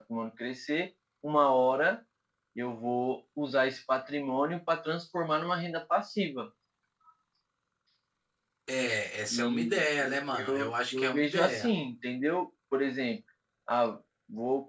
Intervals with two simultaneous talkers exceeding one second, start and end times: 10.3-11.7

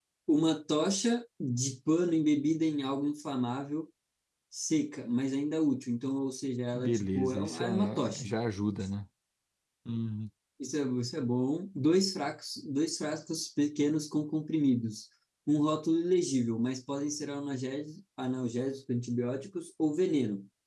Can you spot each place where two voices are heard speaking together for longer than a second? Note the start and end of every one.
6.7-8.3

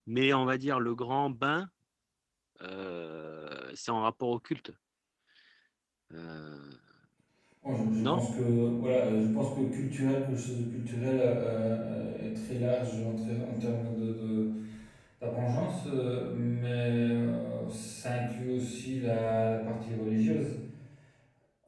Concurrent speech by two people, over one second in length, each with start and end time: none

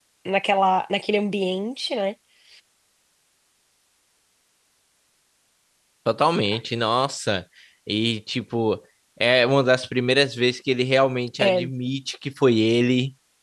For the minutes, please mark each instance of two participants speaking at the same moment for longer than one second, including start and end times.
none

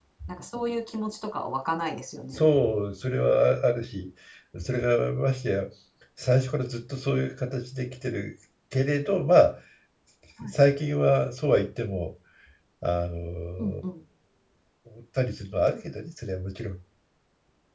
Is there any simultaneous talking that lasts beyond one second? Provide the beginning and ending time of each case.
none

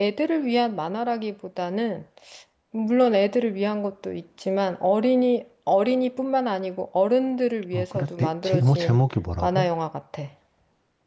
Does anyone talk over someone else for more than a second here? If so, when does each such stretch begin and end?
7.7-9.0

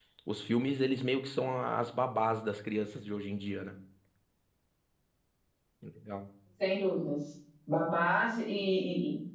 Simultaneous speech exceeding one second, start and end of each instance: none

